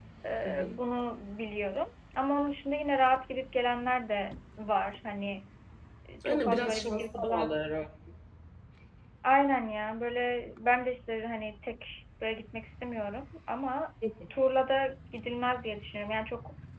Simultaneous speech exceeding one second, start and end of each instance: 6.2-7.6

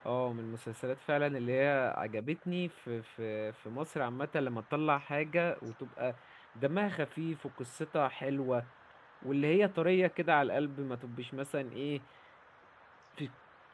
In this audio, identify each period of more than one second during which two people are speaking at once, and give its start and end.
none

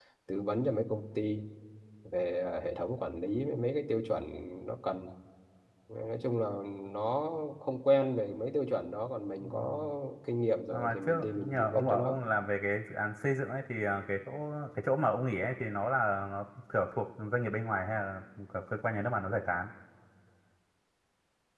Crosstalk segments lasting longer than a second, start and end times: 10.7-12.2

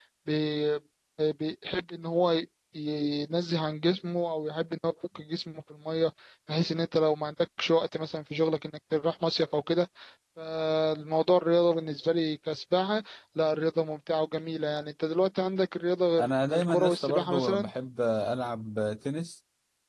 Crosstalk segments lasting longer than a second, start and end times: 16.2-17.7

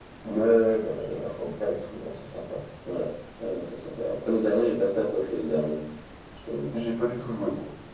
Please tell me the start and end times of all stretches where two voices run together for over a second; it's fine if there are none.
none

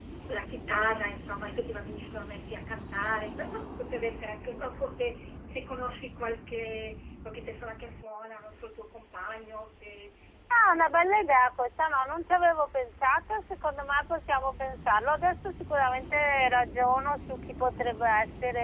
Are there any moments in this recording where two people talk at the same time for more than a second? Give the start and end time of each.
none

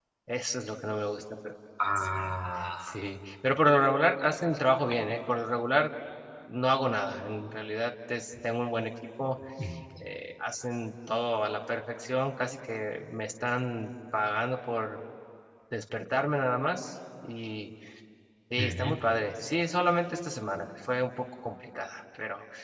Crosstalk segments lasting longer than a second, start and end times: none

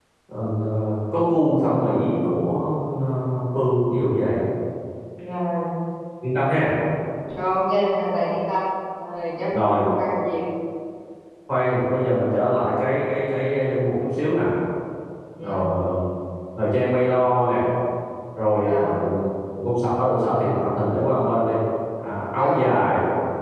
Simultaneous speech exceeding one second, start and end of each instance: none

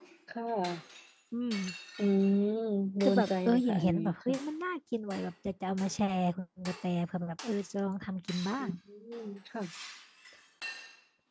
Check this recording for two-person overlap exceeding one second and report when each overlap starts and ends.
3.0-4.4

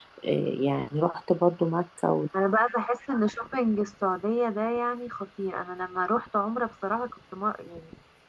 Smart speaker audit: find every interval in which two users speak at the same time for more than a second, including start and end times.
none

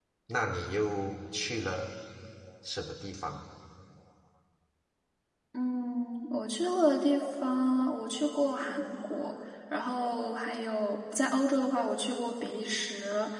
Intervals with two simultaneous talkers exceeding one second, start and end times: none

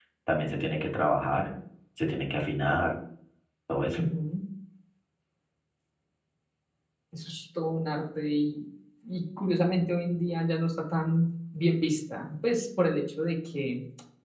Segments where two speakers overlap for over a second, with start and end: none

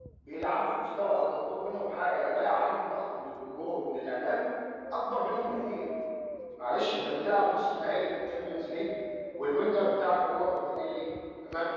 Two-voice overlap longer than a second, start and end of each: none

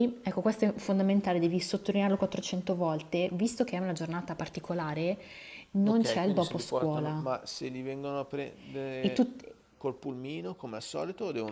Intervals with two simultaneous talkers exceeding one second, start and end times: 5.8-7.2

